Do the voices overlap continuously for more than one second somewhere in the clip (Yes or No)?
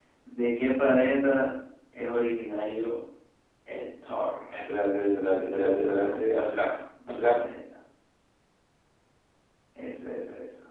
Yes